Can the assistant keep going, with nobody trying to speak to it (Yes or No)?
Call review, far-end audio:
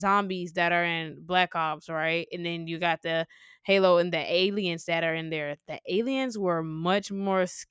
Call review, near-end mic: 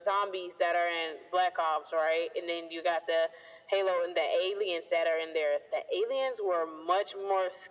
Yes